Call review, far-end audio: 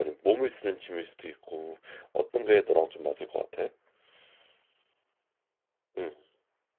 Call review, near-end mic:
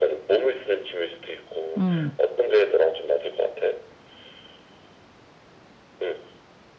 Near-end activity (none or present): present